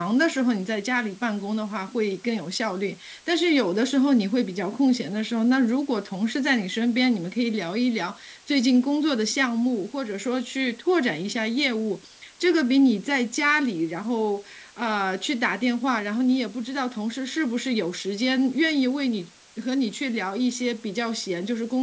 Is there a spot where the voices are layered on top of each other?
No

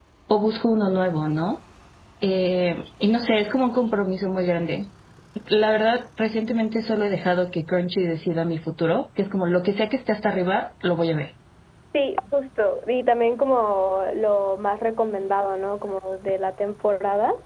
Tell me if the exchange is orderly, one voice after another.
Yes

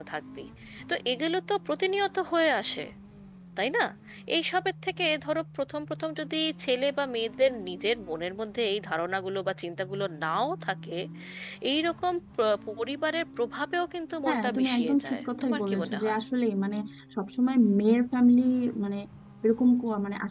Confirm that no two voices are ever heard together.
No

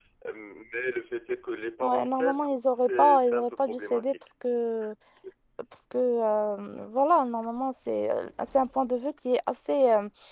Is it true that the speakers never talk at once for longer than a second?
No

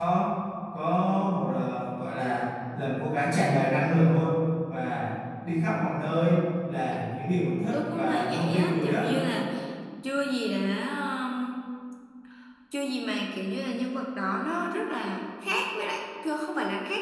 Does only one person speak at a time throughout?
No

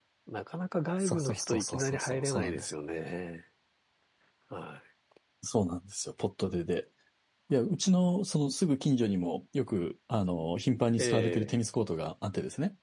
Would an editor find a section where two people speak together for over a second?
Yes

